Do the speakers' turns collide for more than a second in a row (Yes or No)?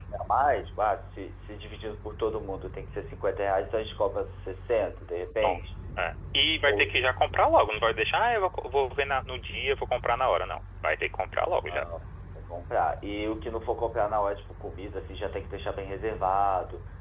No